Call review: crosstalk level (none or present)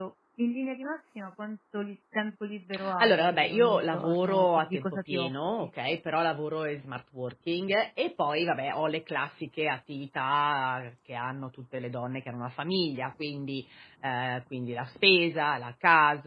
present